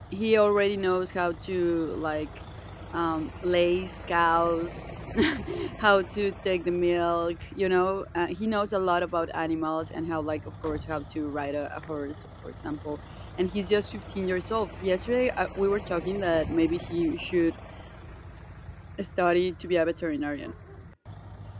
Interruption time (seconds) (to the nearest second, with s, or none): none